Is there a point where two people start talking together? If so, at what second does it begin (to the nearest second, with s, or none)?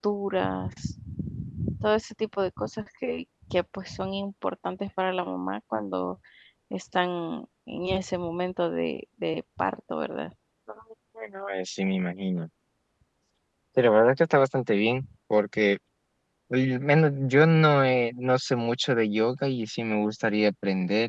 none